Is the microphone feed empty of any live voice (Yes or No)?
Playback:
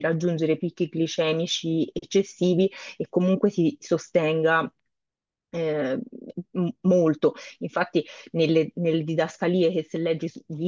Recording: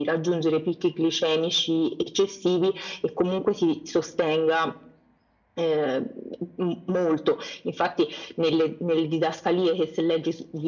Yes